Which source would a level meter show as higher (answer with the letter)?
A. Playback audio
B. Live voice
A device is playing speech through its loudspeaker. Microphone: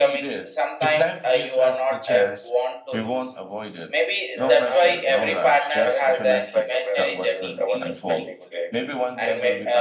A